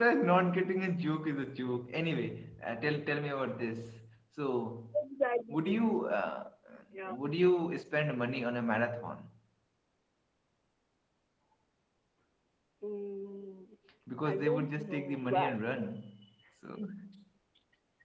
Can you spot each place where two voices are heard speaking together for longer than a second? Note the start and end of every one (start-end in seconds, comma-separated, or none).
14.3-15.6